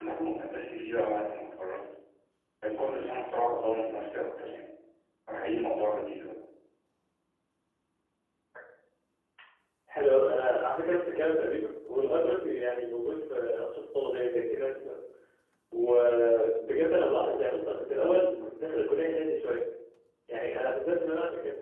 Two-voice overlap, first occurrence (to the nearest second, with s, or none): none